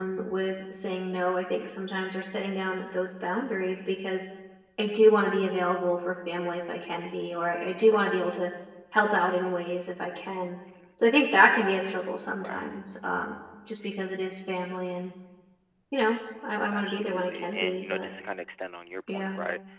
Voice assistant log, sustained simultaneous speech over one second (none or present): present